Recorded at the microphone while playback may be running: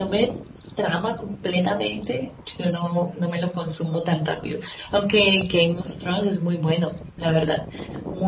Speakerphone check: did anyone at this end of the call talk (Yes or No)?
No